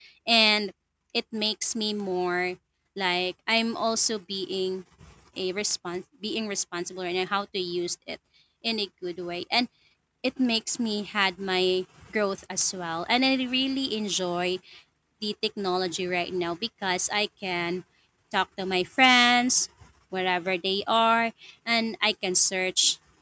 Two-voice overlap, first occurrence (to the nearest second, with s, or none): none